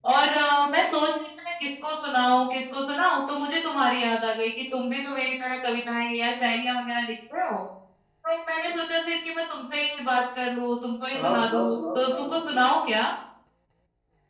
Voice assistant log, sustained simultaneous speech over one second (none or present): present